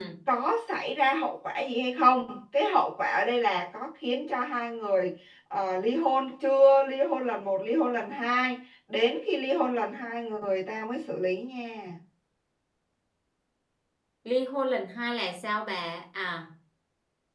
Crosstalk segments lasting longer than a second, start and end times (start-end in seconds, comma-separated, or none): none